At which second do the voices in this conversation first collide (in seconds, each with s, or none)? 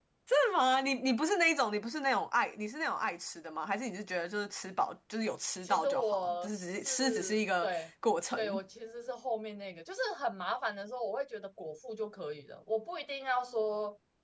5.6 s